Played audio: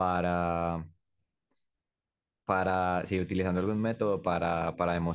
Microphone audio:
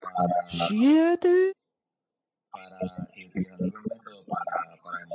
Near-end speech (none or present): present